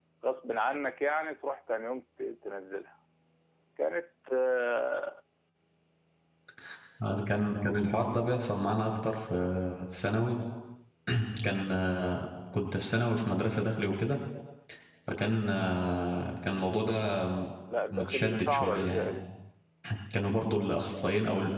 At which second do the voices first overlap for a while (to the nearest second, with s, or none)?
18 s